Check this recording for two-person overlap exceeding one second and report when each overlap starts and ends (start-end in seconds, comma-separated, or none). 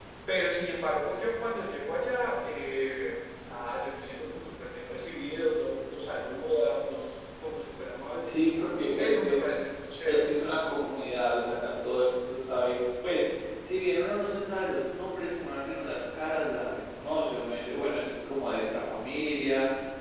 none